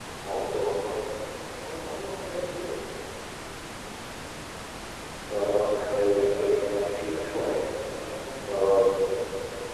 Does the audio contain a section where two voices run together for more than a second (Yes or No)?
Yes